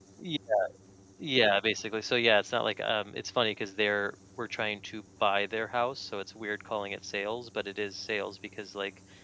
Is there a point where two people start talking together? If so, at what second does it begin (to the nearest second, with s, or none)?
none